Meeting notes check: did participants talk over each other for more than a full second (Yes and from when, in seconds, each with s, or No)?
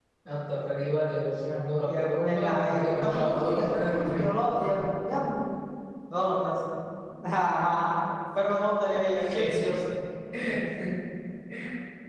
Yes, from 1.9 s